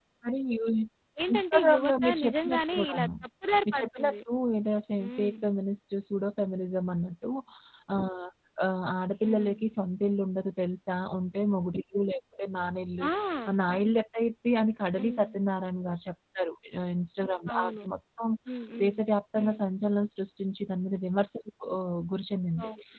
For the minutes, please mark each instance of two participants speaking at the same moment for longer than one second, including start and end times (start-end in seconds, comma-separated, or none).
1.3-3.1